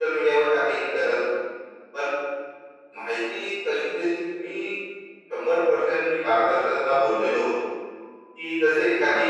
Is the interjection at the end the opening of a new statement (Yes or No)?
No